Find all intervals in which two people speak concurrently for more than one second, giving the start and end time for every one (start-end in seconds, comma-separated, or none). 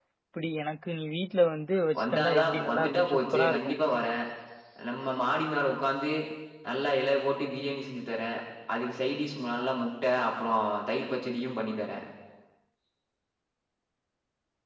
2.0-3.8